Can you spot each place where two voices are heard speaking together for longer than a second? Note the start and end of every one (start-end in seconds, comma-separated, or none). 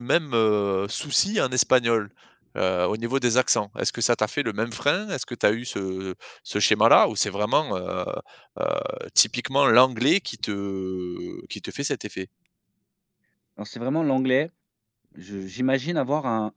none